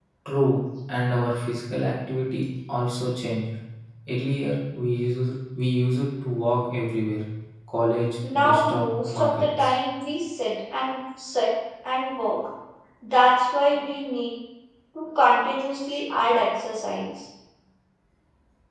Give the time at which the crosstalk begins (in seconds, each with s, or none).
8.3 s